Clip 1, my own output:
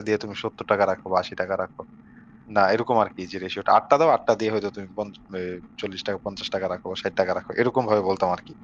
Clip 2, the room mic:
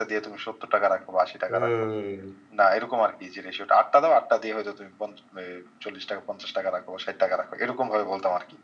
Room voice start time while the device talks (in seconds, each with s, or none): 1.5 s